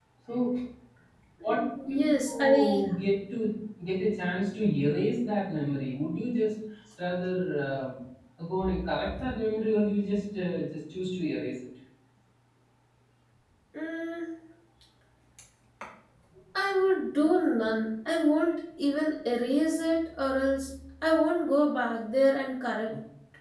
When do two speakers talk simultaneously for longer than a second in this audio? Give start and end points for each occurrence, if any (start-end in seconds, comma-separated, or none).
1.4-2.8